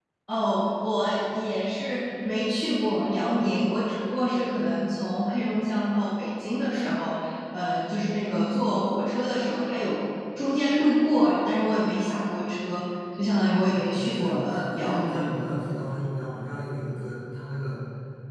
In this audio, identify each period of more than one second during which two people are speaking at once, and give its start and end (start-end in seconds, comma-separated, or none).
13.7-15.3